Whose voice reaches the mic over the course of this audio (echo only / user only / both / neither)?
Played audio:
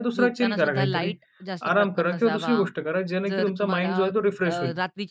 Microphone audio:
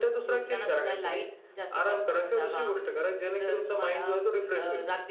echo only